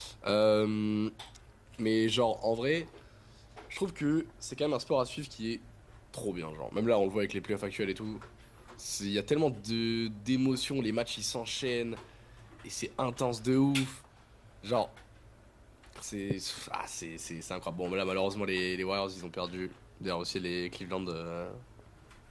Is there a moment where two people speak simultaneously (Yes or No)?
No